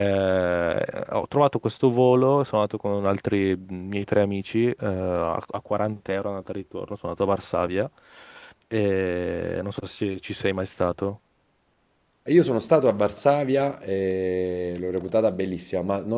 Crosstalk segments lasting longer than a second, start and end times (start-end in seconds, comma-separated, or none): none